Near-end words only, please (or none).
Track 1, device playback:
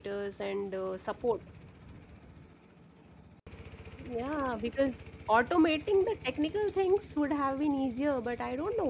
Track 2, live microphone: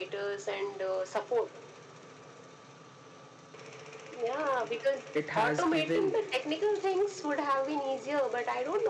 it has given